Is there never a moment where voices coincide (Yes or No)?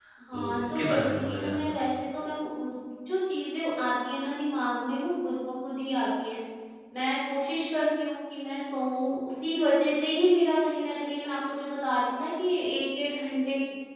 No